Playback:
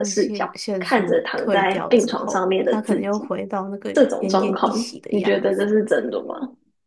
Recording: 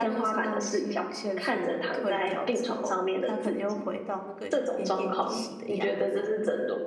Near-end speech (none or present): none